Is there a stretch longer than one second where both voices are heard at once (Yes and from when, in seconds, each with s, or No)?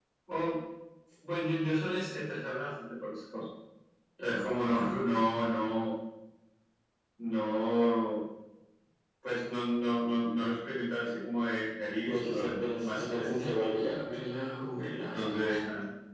Yes, from 12.0 s